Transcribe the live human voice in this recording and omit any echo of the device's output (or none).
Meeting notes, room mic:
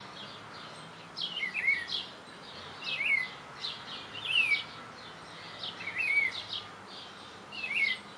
none